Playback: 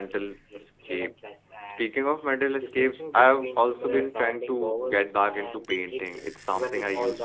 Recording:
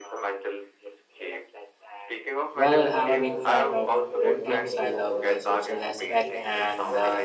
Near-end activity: present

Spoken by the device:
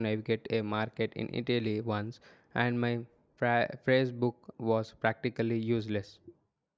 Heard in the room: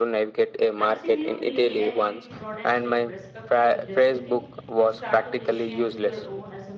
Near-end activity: present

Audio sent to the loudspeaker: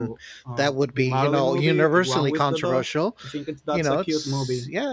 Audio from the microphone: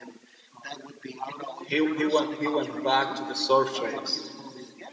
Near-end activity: present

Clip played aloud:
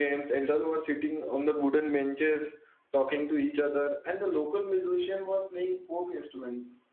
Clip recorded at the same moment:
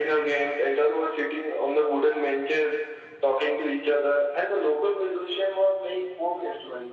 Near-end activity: none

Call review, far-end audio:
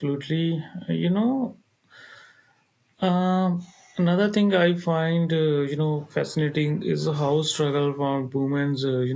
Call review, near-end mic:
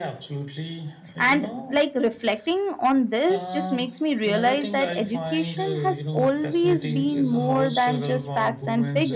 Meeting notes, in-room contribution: present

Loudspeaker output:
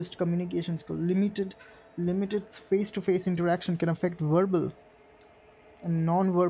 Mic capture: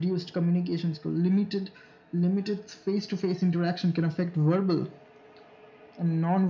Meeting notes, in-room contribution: none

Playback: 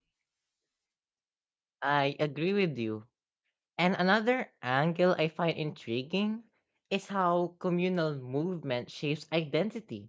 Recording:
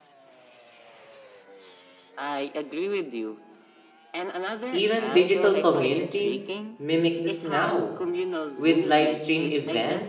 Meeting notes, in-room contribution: present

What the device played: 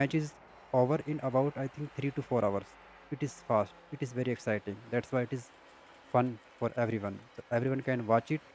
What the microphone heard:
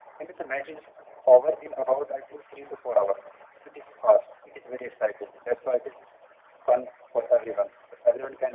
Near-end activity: none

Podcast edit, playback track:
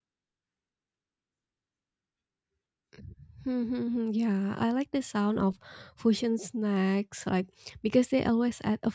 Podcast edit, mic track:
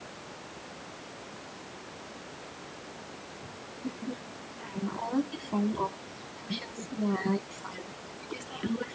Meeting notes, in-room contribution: none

